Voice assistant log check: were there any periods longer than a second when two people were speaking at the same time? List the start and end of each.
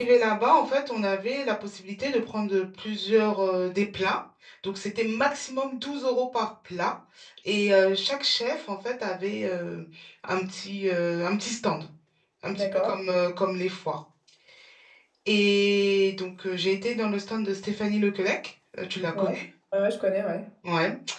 none

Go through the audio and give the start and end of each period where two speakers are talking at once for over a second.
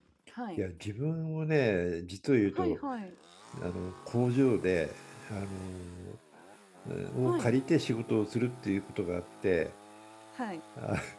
none

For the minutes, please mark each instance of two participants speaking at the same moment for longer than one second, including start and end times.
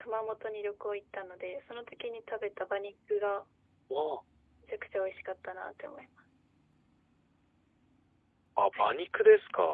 none

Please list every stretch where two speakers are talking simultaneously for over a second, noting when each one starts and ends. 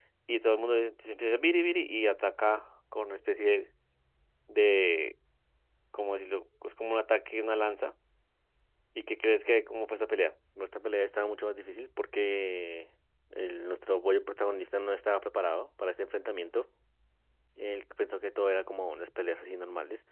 none

